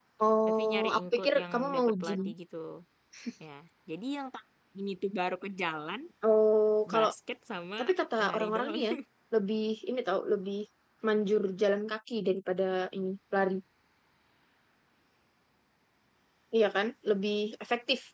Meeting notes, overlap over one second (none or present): present